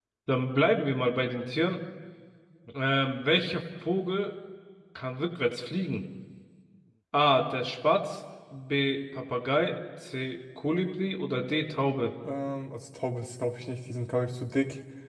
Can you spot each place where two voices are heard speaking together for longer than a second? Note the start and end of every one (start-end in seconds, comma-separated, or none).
none